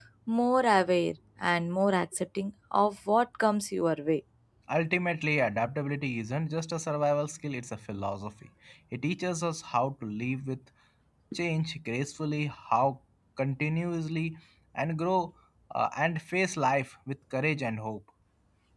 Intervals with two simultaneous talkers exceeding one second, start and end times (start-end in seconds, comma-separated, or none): none